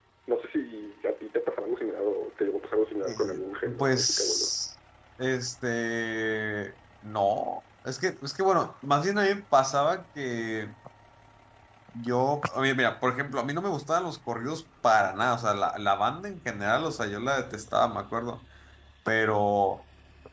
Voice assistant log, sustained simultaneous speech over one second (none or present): present